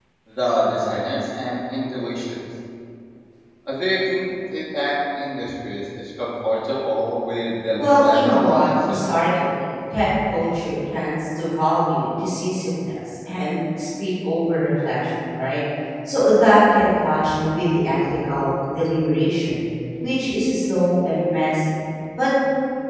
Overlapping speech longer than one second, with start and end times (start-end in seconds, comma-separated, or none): 7.8-9.4